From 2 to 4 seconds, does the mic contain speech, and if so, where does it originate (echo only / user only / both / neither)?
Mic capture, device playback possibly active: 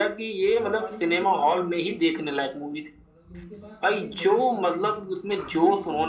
both